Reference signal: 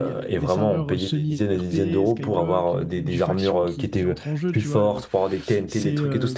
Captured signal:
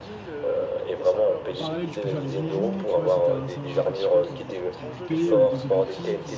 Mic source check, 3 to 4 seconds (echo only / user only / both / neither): both